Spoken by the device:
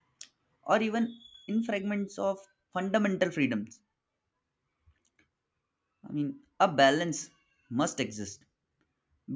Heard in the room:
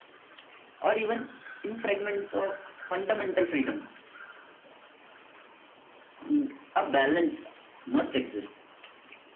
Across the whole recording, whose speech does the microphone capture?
echo only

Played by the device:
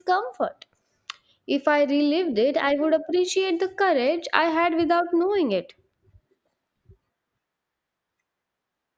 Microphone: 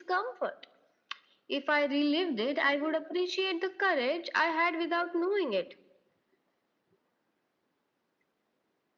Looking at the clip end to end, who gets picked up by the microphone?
echo only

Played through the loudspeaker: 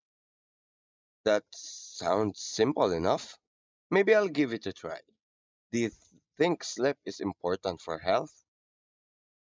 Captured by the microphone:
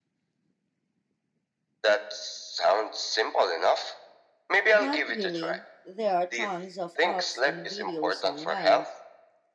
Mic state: both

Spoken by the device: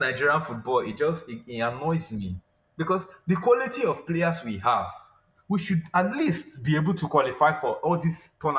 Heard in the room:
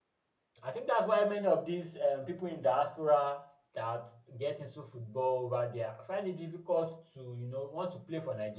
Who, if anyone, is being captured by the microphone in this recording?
user only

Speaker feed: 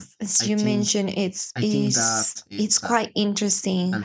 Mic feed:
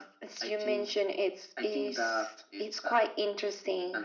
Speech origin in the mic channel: echo only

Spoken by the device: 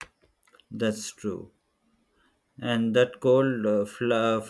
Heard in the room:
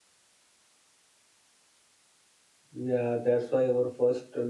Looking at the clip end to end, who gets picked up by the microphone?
user only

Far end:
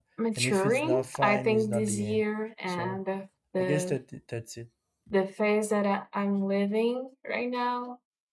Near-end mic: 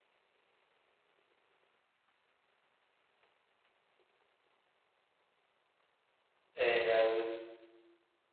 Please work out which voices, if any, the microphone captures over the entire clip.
user only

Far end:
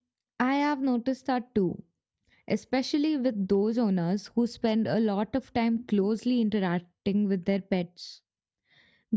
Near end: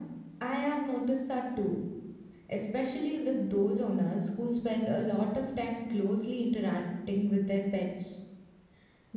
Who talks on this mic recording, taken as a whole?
echo only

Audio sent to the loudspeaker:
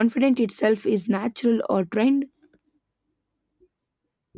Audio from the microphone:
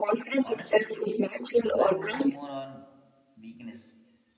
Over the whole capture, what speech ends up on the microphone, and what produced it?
both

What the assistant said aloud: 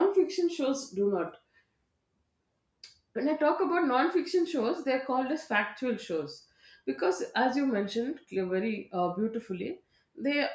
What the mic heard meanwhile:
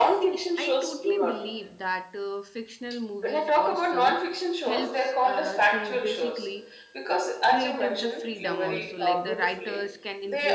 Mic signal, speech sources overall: both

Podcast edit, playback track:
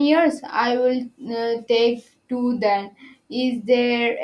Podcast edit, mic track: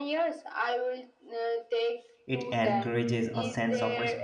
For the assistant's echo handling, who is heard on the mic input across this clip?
both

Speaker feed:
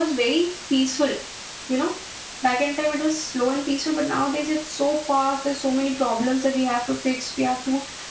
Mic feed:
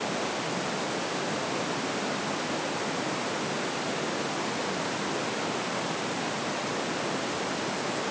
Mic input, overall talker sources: neither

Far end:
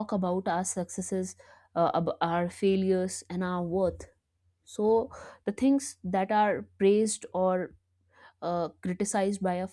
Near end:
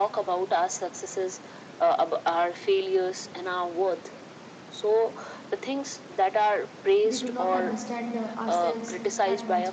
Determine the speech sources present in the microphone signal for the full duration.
both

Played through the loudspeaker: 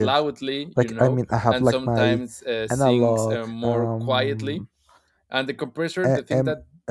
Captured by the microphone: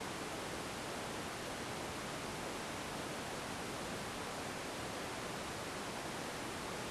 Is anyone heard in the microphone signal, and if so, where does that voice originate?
neither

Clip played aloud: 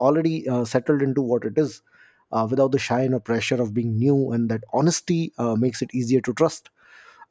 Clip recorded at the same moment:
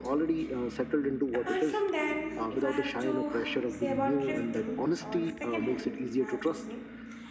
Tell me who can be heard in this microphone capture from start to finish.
both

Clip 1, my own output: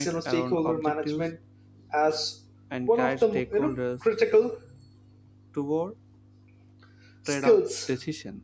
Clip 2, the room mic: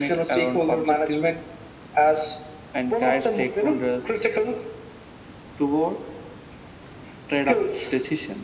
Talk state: echo only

